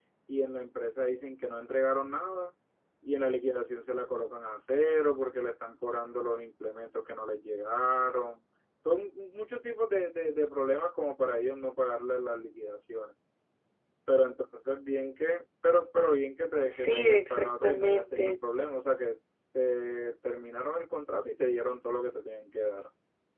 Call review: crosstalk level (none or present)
present